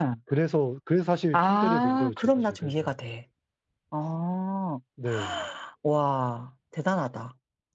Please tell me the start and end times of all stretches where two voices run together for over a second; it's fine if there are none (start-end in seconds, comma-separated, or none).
1.3-2.9